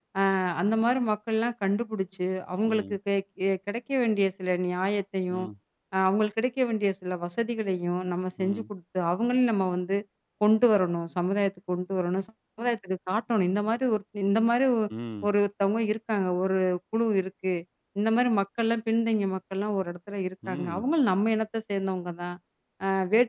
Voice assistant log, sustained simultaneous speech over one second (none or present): none